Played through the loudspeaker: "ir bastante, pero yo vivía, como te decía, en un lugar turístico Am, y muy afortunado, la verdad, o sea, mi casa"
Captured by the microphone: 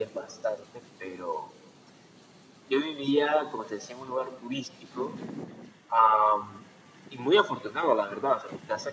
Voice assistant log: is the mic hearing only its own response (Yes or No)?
Yes